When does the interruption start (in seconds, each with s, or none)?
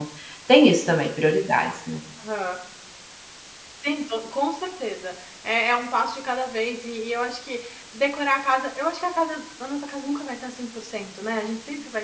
none